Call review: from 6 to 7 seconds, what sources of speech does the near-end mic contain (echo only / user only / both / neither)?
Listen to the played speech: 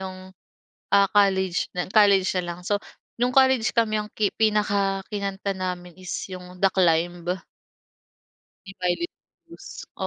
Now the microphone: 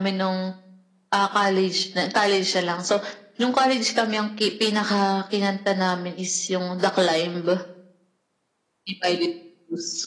echo only